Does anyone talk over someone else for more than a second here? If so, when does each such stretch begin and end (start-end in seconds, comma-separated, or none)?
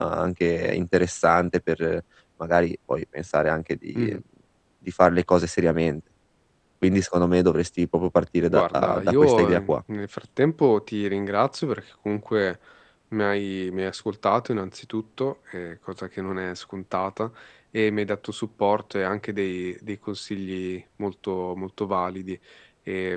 8.5-9.7